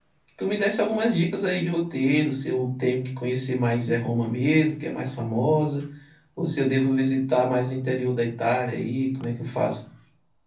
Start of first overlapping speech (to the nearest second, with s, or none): none